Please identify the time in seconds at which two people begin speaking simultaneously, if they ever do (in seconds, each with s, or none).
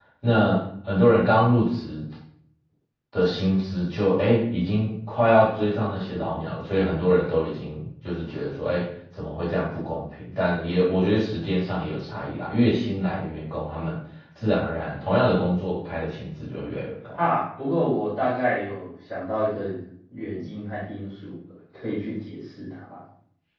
none